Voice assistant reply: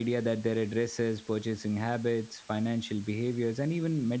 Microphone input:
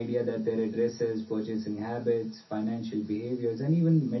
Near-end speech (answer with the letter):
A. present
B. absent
B